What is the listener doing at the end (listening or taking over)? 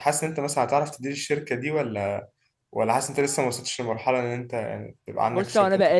taking over